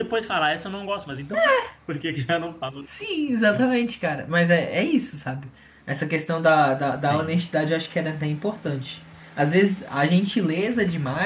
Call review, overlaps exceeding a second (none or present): none